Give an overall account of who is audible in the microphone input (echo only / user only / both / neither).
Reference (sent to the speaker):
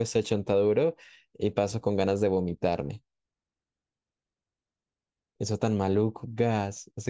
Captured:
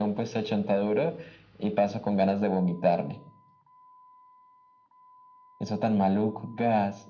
echo only